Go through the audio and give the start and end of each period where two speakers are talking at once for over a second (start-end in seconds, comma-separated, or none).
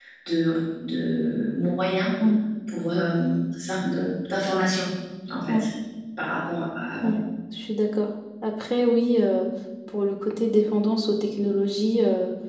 none